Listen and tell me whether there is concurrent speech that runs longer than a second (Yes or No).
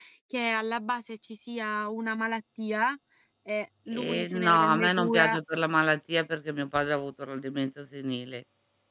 Yes